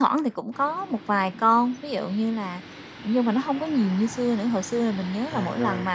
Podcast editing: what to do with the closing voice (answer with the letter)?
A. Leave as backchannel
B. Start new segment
A